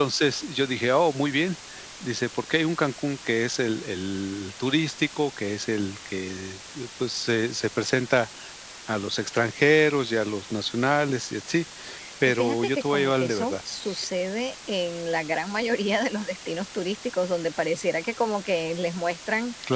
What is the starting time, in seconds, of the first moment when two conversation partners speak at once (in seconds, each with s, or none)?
12.3 s